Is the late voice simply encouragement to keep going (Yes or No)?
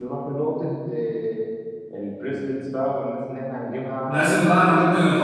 No